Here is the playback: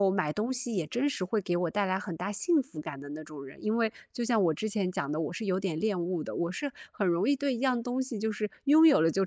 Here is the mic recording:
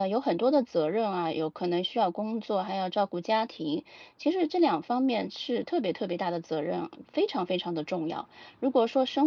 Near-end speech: present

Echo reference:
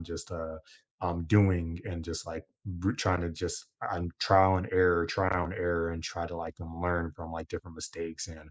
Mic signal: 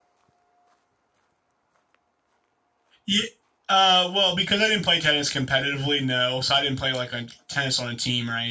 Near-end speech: present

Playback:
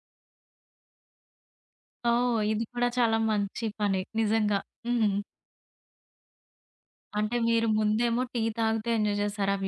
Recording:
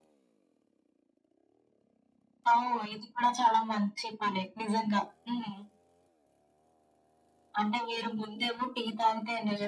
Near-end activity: none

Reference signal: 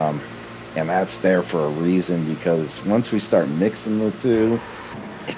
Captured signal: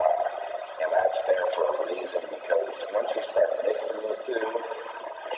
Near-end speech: none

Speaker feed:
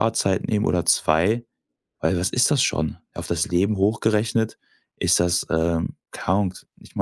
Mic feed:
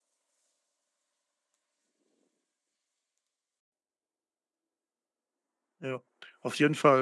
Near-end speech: present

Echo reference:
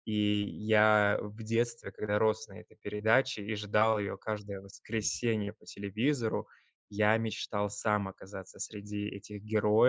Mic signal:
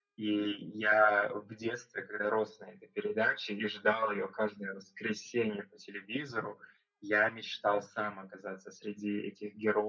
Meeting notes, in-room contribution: none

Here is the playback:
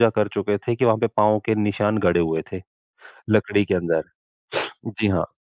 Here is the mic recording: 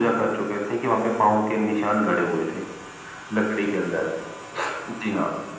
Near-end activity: none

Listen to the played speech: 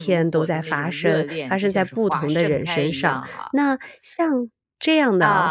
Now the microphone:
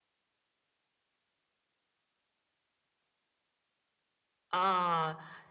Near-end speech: present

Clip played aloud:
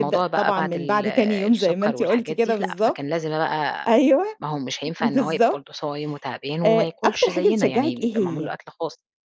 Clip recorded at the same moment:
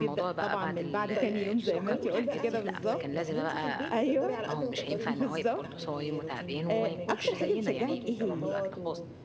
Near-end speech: present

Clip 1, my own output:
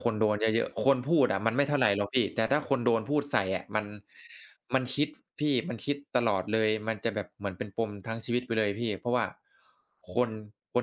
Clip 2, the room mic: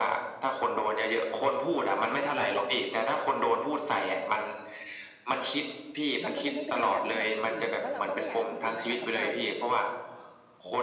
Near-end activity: present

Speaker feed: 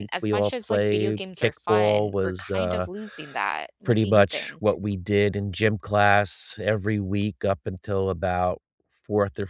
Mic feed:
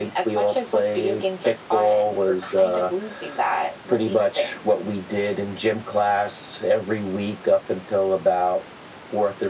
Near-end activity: none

